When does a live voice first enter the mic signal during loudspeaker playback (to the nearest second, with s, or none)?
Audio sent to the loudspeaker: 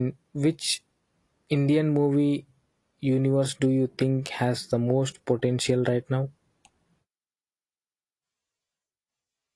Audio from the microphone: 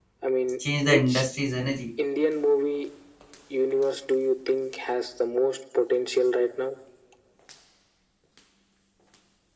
1 s